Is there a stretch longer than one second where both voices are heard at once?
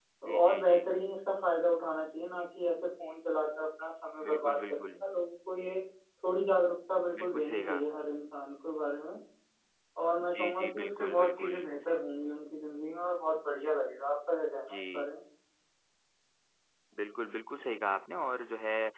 Yes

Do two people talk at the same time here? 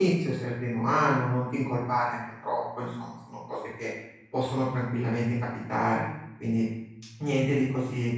No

